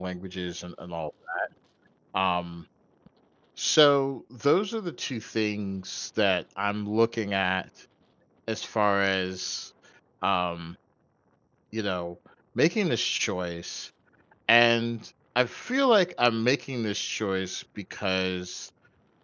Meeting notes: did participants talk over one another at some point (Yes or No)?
No